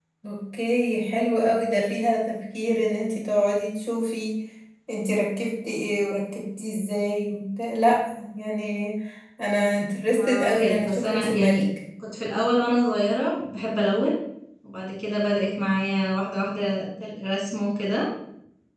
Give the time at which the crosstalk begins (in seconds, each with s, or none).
10.1 s